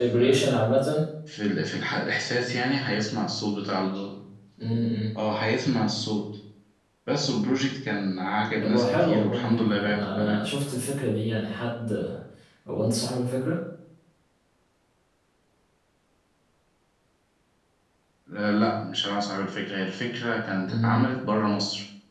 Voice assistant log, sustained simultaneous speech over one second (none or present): present